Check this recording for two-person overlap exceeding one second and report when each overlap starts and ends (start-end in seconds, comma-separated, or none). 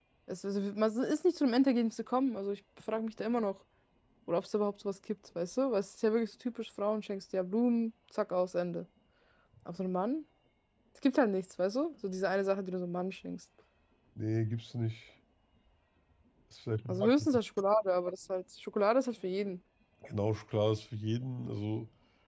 none